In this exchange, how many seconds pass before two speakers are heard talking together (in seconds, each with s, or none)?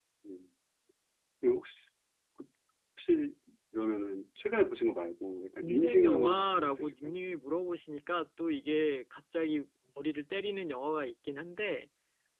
5.6 s